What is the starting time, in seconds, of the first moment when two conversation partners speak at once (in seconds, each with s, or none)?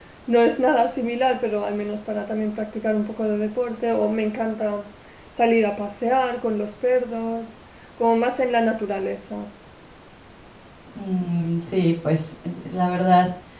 none